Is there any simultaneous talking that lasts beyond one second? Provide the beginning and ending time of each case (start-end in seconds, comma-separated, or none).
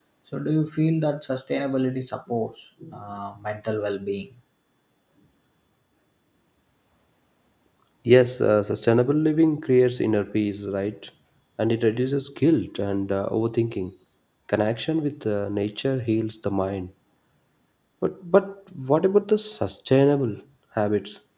none